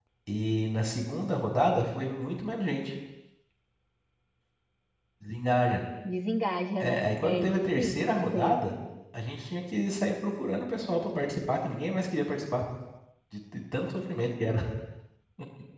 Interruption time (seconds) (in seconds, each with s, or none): 6.8 s